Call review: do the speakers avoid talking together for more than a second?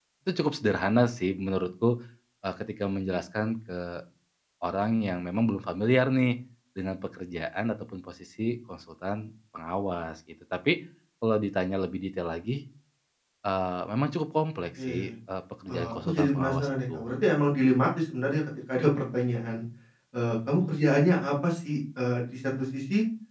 No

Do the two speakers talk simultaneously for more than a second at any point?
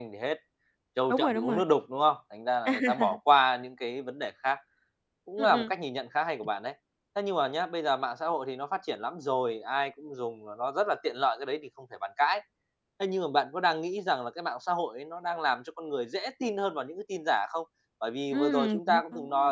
Yes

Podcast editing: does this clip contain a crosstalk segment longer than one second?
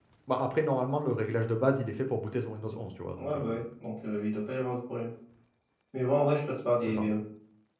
No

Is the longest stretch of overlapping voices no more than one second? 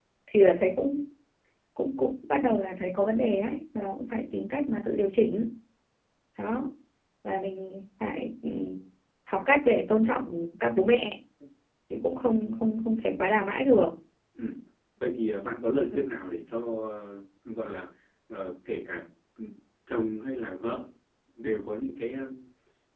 Yes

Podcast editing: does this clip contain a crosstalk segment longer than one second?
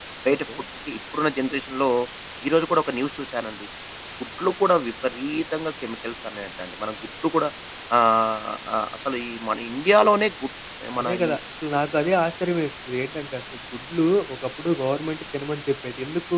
No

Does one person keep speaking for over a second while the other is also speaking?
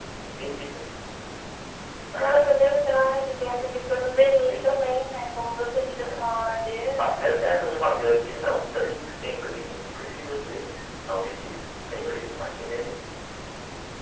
No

